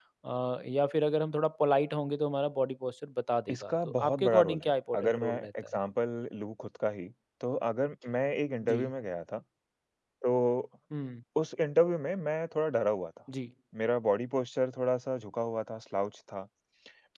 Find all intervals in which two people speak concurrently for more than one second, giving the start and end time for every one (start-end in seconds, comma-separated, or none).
3.5-5.8